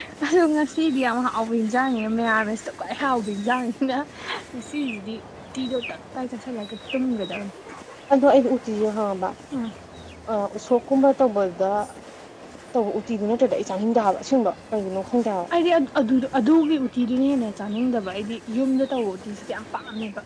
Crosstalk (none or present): none